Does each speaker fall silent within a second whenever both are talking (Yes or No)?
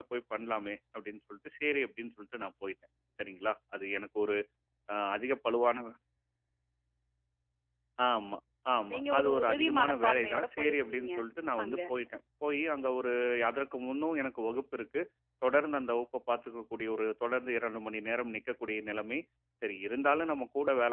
No